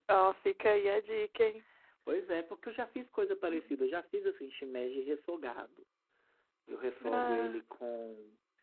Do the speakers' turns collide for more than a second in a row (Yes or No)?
No